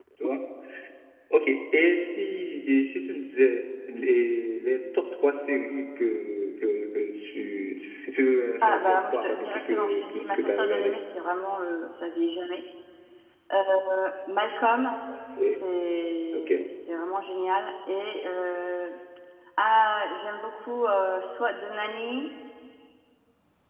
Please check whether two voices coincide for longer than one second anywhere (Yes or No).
Yes